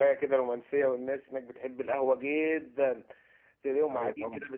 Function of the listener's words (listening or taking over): listening